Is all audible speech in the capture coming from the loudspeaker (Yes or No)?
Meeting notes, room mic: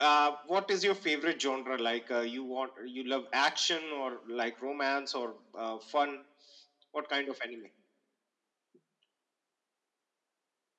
Yes